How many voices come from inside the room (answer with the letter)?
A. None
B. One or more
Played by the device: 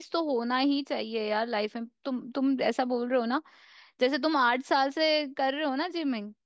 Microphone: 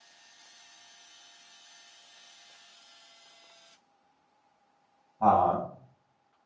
B